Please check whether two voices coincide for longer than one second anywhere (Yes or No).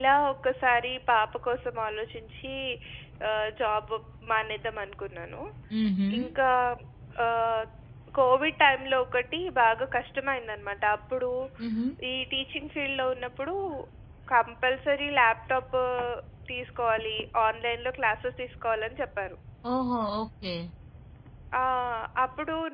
No